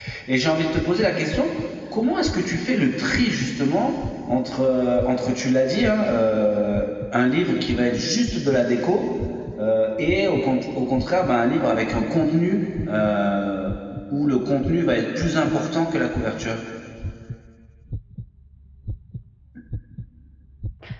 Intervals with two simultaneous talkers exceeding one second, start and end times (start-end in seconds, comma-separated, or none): none